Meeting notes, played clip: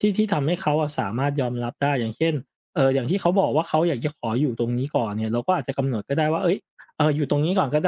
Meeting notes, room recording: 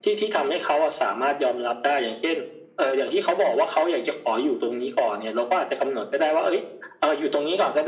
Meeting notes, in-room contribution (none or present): none